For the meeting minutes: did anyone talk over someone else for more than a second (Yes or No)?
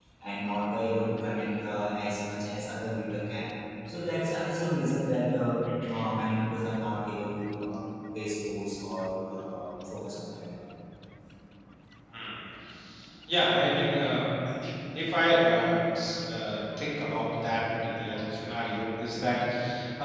No